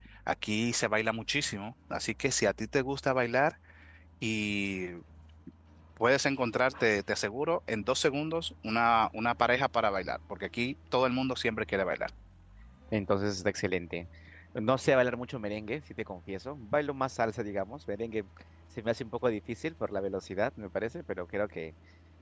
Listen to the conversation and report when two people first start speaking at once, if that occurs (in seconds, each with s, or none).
none